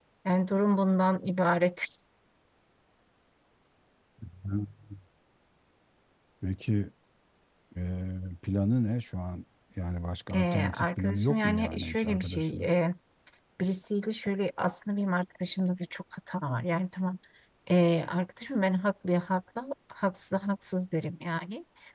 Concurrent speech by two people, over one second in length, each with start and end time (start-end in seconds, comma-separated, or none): 10.3-12.7